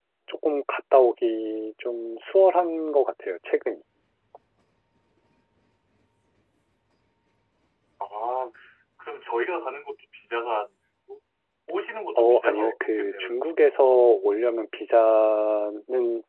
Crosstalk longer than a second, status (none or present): present